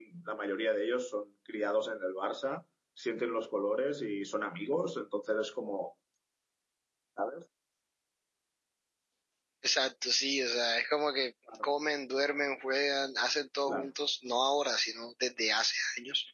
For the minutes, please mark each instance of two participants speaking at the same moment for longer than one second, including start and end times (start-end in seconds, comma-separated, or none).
none